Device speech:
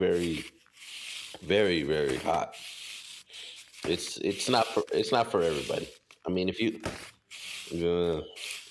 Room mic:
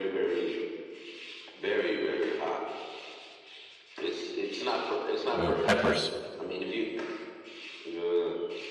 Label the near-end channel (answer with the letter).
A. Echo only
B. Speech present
B